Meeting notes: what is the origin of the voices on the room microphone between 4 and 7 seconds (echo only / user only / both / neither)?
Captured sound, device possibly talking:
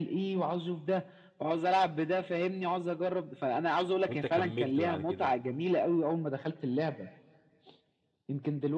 both